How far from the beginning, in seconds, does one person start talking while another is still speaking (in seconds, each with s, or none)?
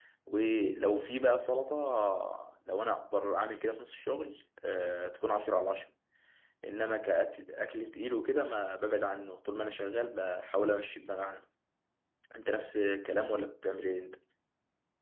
none